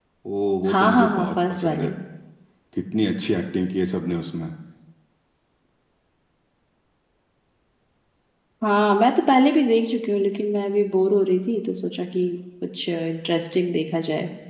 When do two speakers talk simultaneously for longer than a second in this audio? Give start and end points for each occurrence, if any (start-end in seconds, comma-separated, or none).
0.7-1.9